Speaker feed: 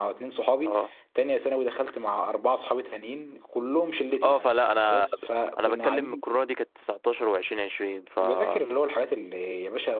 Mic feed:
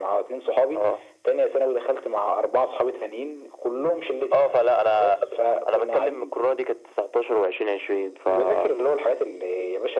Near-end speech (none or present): none